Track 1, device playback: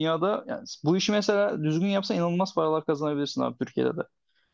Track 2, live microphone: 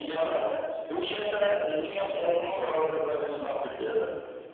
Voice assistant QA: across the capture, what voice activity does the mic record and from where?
both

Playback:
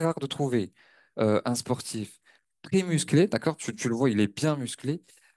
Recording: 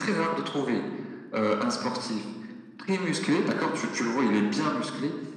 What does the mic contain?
echo only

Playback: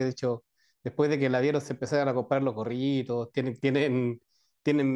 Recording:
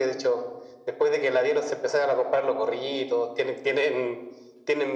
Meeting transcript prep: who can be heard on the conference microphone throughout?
echo only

